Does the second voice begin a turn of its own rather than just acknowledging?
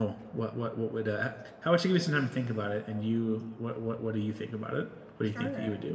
Yes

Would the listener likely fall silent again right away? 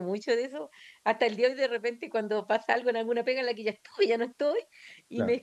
Yes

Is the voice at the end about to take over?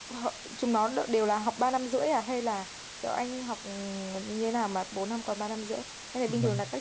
Yes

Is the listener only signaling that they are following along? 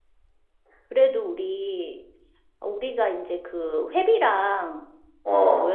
Yes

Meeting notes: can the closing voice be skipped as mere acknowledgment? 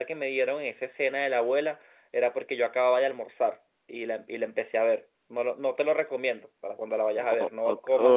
No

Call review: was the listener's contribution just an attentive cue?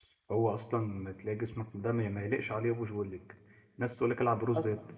Yes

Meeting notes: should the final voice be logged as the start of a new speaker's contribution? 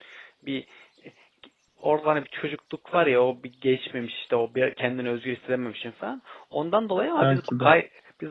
No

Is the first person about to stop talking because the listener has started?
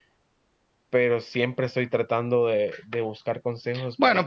Yes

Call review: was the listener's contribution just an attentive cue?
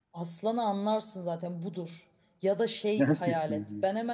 Yes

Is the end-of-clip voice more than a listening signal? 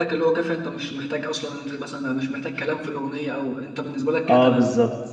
Yes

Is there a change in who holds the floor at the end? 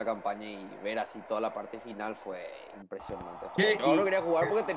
No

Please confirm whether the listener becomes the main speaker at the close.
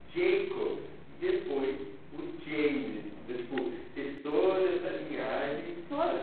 Yes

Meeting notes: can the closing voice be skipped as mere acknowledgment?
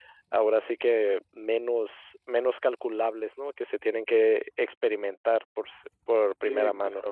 No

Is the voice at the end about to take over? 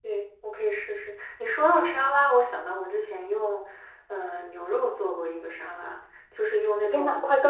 Yes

